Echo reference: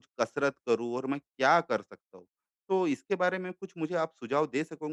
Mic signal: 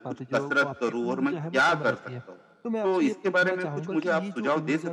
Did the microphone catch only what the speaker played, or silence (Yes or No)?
No